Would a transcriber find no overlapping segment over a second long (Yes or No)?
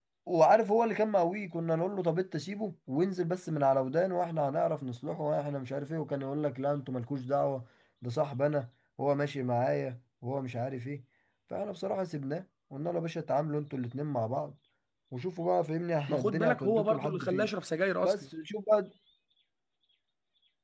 No